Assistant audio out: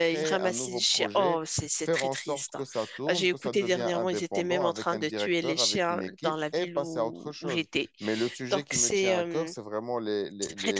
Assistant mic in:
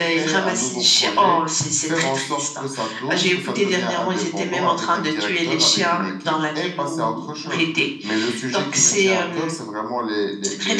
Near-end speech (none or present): none